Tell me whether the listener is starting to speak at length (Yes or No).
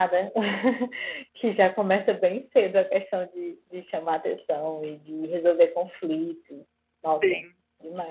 Yes